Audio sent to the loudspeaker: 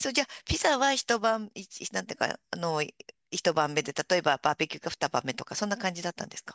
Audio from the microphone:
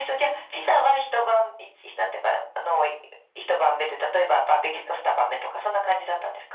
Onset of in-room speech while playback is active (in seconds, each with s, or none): none